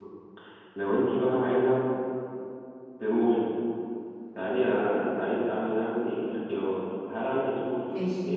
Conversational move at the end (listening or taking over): listening